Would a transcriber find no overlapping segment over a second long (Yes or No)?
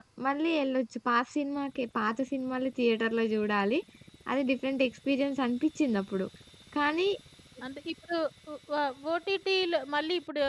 Yes